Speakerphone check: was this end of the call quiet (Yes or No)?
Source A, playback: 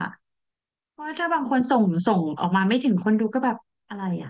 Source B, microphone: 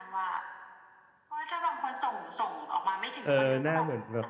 No